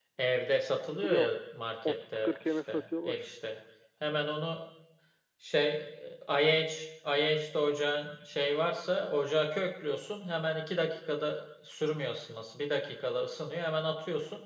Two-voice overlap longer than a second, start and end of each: 1.8-3.2

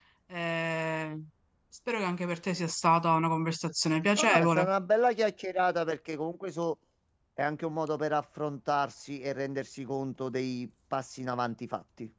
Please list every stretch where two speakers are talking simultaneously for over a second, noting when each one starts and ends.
none

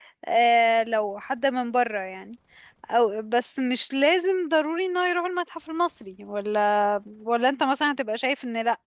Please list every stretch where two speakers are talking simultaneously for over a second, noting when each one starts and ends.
none

